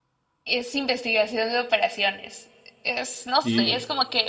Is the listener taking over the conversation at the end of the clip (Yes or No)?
No